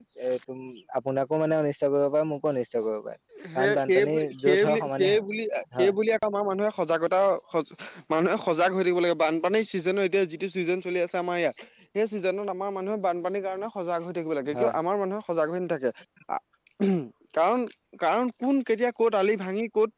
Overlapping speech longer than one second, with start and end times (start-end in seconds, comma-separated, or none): 3.5-5.2